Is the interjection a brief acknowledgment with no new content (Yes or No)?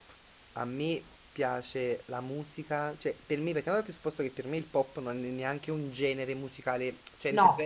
Yes